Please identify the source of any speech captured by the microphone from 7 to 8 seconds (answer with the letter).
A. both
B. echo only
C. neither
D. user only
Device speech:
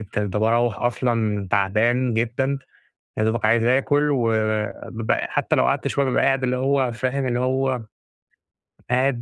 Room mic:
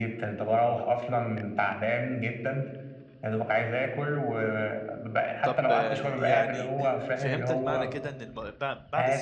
A